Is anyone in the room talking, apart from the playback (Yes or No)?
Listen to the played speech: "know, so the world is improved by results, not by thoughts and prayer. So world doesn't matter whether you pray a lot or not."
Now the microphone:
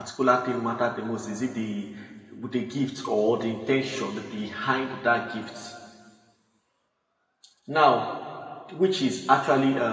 Yes